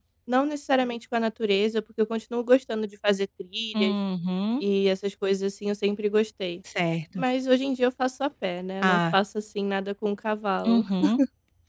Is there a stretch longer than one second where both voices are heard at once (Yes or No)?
No